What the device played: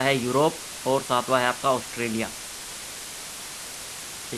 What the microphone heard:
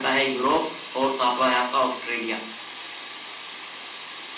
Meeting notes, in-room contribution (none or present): none